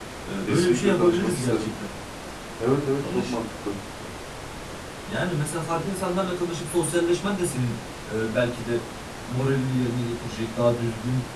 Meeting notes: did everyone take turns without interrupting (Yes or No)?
No